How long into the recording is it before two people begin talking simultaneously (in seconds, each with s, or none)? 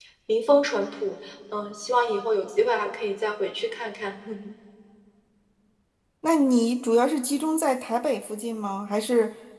none